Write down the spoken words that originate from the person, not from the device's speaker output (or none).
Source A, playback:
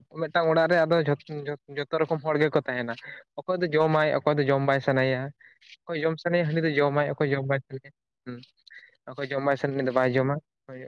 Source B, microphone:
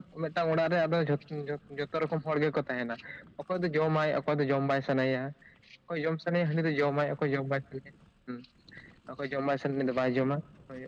none